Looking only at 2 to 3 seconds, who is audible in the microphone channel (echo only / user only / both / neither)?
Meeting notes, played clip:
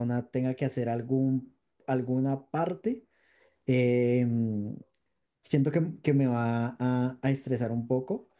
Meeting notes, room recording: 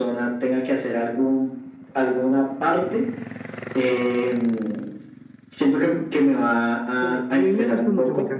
echo only